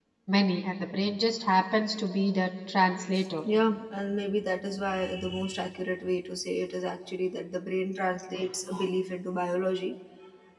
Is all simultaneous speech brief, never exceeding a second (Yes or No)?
Yes